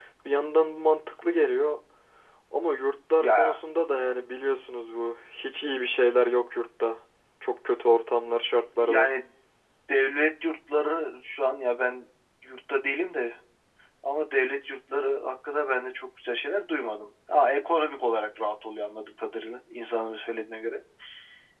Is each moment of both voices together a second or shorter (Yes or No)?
Yes